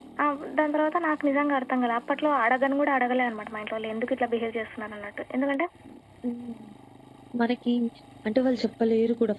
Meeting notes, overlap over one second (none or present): none